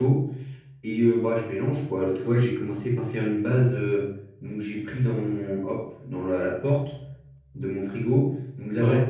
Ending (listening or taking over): listening